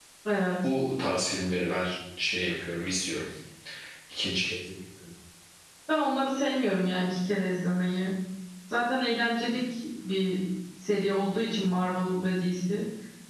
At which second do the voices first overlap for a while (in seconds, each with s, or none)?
none